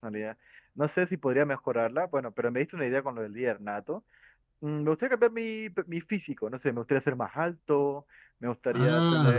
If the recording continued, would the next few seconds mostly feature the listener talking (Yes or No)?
No